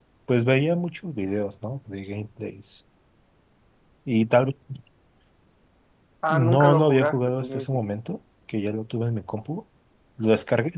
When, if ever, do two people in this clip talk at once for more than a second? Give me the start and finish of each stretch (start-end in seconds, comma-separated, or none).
6.3-7.8